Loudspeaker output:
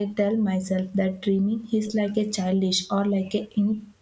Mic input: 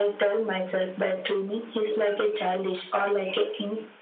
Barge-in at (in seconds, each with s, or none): none